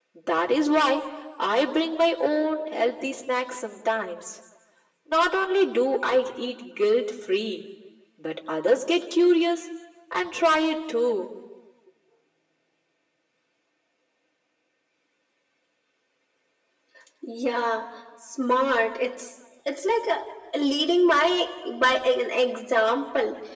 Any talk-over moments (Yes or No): No